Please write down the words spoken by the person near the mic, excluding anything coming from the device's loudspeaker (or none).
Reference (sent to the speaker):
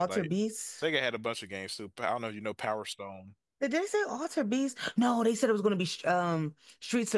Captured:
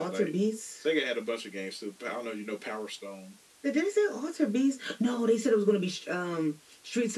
none